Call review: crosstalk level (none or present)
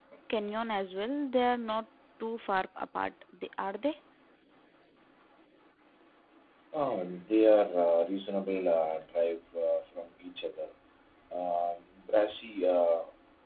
none